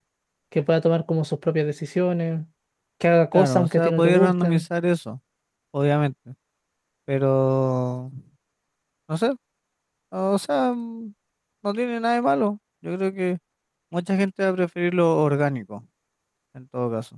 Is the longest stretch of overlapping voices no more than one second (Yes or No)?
No